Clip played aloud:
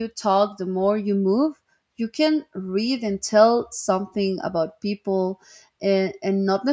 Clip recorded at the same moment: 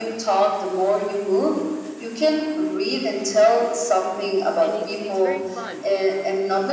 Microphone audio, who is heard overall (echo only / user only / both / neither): both